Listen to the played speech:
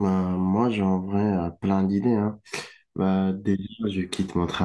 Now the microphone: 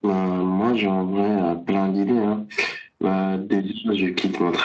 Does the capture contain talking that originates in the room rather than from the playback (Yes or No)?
No